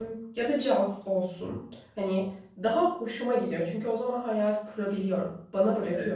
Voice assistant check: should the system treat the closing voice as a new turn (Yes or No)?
Yes